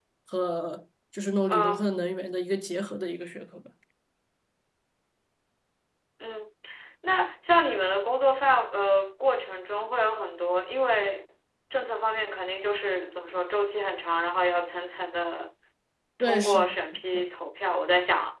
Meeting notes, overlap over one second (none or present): none